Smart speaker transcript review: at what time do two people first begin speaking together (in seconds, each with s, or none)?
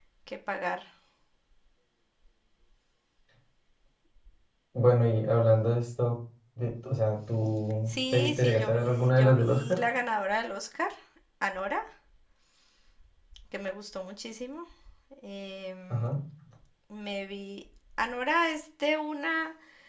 7.9 s